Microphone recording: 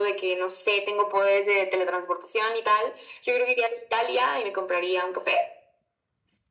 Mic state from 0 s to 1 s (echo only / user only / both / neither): echo only